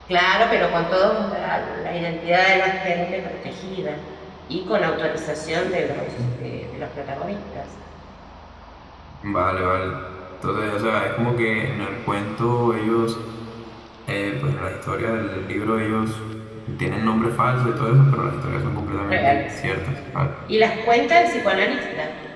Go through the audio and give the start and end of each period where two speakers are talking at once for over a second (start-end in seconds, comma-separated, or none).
none